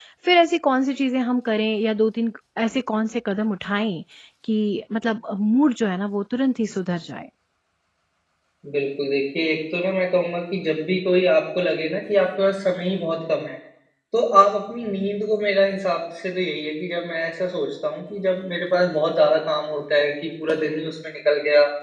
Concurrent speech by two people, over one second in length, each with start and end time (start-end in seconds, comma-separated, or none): none